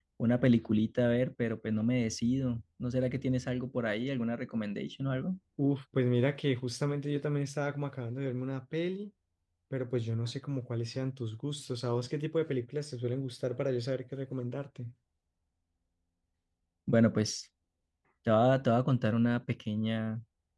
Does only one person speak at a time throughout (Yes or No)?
Yes